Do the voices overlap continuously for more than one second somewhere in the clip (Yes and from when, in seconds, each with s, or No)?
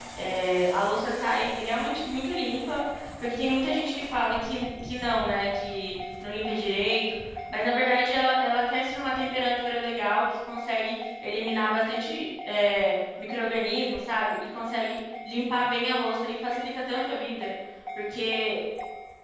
No